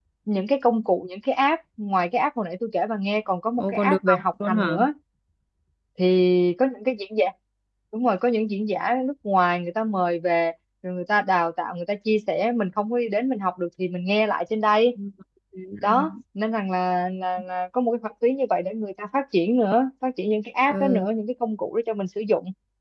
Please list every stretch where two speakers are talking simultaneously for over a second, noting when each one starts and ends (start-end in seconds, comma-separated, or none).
3.6-4.8